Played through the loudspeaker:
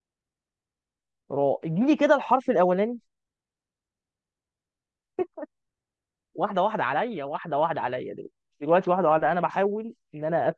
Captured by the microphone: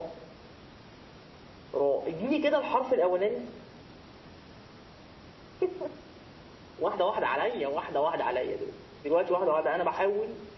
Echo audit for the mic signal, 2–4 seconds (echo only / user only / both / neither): echo only